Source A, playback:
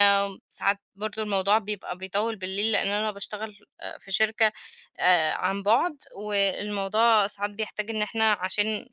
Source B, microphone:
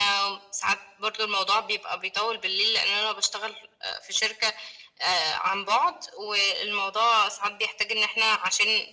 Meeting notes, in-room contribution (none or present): none